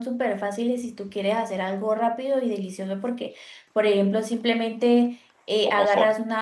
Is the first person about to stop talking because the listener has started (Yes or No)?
No